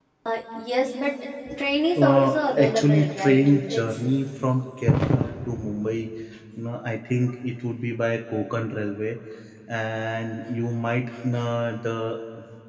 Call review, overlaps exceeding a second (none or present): present